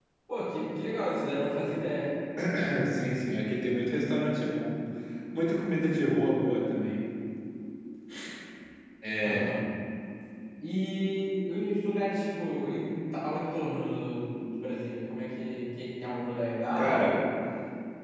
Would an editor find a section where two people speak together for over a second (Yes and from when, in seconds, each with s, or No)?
No